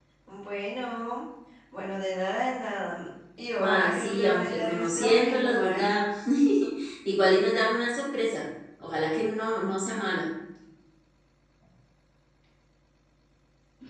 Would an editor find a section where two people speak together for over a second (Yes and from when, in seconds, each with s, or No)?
Yes, from 3.6 s